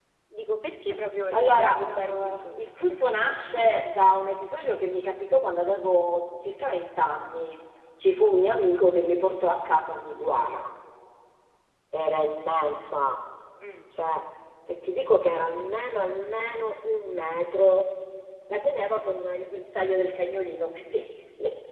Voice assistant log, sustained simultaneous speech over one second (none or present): present